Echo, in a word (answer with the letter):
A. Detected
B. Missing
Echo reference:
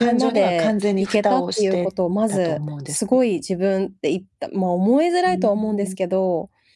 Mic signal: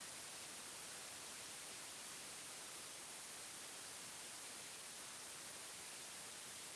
B